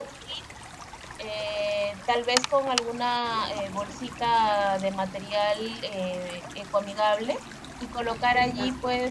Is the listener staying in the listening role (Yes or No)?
Yes